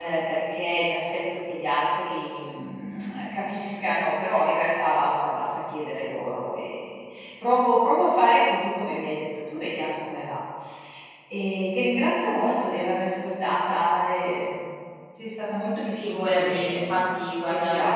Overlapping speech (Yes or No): Yes